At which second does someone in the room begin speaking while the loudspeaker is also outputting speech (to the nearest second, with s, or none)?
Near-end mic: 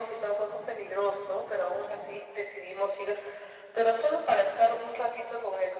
none